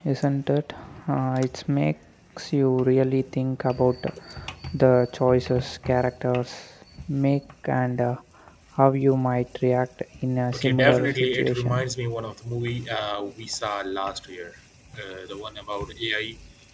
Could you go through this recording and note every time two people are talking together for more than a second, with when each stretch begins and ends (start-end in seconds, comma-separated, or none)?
10.5-11.7